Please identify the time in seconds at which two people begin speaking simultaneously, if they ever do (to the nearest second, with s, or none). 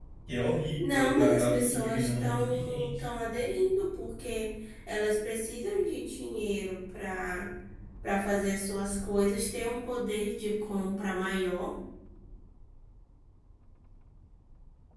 1 s